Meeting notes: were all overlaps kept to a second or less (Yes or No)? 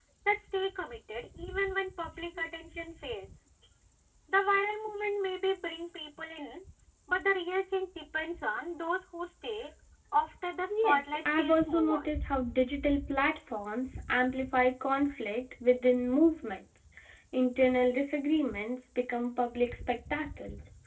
No